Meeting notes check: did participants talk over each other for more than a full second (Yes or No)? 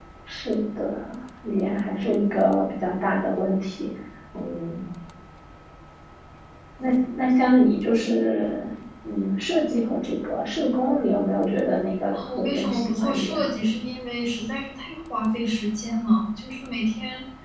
Yes